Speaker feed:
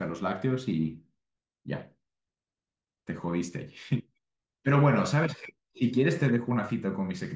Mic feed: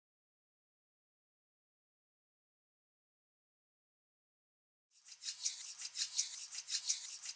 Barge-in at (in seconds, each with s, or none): none